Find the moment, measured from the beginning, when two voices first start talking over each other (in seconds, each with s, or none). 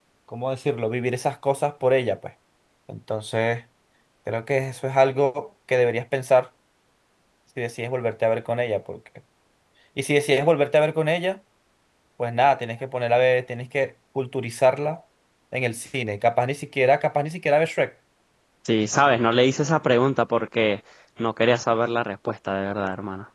none